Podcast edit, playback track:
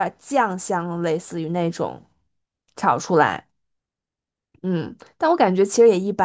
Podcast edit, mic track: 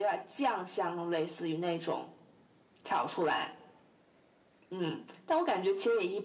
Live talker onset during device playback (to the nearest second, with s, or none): none